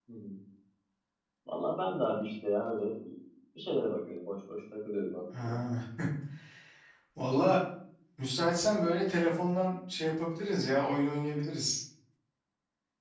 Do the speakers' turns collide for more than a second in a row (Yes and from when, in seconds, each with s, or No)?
No